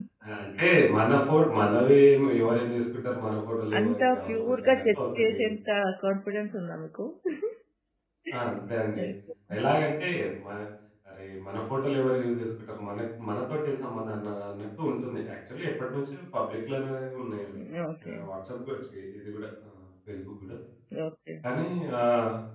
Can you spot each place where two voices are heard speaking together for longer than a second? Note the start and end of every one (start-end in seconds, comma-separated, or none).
3.8-5.4